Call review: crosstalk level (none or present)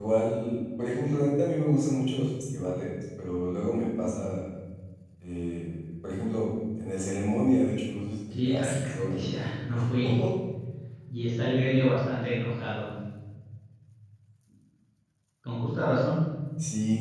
present